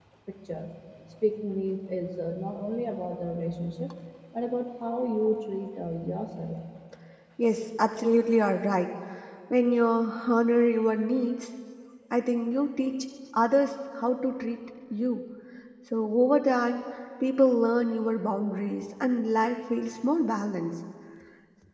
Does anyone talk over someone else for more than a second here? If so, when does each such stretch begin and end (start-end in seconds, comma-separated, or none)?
none